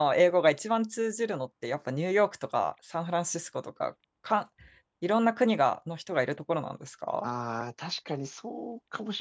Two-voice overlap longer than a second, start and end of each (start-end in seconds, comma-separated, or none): none